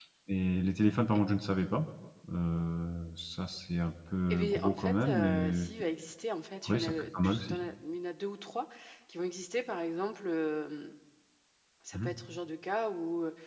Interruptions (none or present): present